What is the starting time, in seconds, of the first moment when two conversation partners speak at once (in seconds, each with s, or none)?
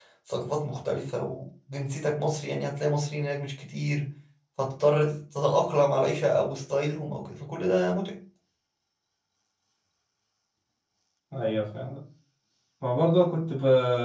none